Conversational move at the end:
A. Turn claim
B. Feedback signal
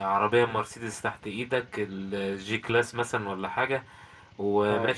B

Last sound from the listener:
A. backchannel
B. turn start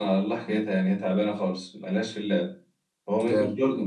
A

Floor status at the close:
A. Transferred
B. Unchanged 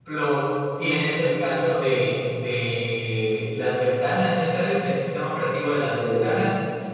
B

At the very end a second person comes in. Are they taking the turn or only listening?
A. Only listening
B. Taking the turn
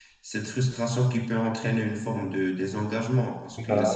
A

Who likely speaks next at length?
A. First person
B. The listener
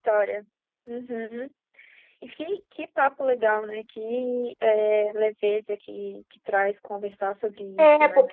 B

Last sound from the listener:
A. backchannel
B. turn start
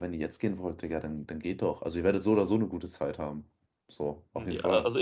B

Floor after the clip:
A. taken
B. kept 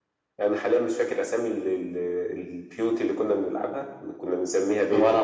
B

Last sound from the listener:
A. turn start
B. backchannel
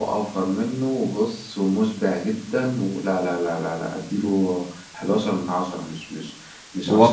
A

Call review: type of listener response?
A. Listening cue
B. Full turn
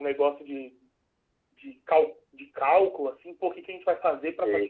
A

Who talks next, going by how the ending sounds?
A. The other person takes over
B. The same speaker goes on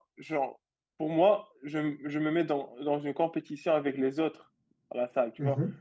B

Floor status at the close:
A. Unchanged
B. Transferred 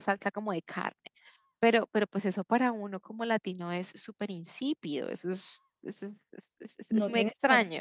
B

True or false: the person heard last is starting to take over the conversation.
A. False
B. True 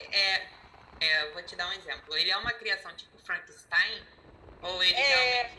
B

